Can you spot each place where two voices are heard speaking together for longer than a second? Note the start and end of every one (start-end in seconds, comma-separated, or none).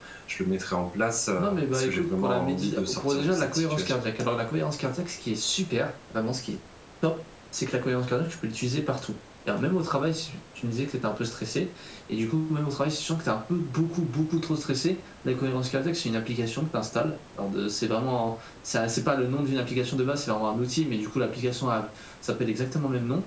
1.4-4.0